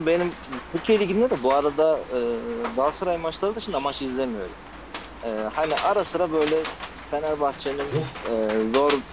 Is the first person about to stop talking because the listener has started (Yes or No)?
No